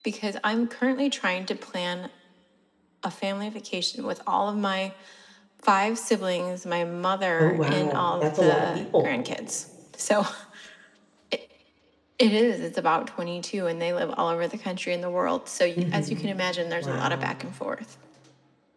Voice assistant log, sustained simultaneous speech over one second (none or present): present